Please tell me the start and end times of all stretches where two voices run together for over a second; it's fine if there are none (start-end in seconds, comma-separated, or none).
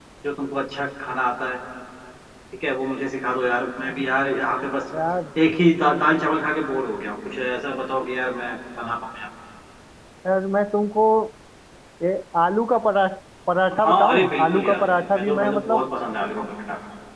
13.7-15.8